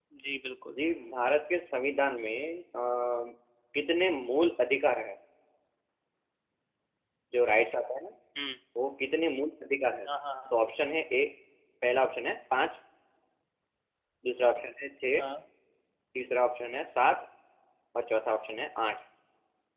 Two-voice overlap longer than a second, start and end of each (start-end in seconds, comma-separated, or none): none